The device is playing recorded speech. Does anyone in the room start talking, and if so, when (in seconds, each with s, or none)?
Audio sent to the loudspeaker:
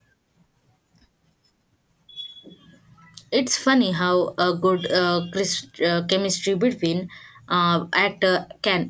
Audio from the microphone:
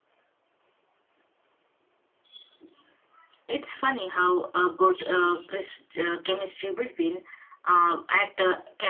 none